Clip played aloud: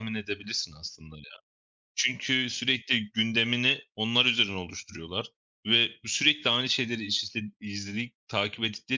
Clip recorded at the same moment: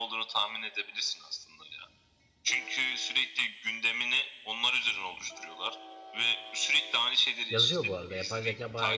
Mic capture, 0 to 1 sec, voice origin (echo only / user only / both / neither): echo only